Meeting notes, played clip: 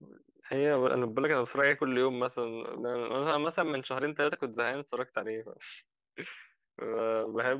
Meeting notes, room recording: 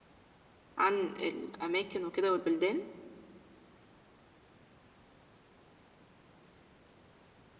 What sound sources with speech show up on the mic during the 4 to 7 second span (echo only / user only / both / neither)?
neither